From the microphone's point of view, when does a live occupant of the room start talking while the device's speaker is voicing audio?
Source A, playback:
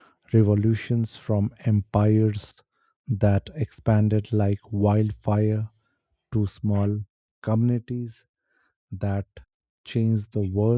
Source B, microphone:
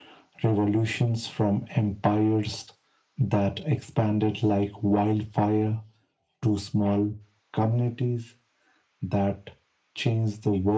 none

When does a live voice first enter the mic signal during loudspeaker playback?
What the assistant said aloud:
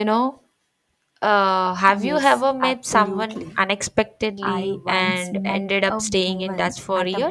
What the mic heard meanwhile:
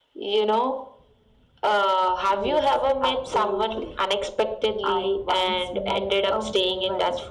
none

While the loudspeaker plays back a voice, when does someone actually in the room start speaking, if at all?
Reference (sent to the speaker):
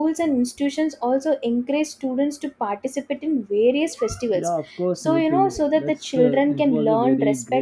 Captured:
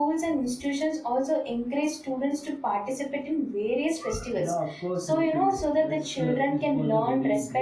none

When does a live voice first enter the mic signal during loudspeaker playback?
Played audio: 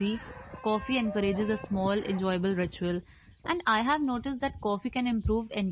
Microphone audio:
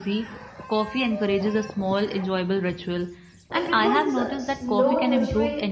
3.5 s

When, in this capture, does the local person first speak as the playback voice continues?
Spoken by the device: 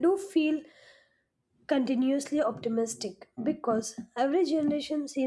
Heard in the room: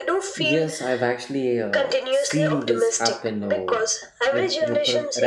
0.4 s

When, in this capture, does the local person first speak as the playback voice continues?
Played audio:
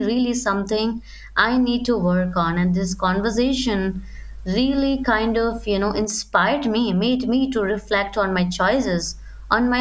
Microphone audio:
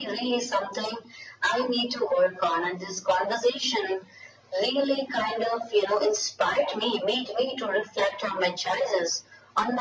none

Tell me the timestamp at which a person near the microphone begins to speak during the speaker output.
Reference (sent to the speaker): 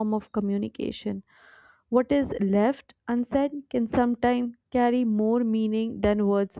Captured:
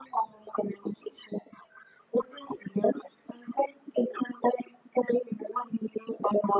none

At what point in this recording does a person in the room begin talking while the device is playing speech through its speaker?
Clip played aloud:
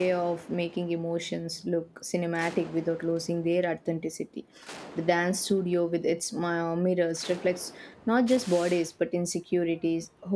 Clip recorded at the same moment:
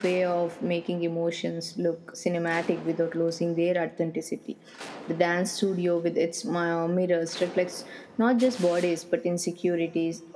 none

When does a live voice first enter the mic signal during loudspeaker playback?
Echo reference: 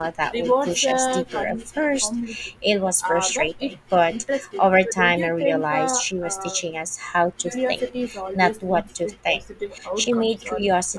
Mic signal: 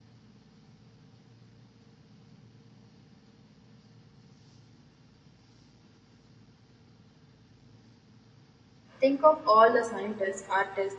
9.0 s

